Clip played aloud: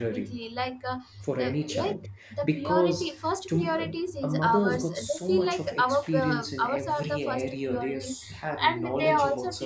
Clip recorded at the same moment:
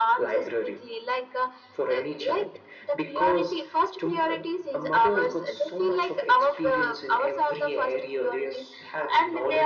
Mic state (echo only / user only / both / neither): echo only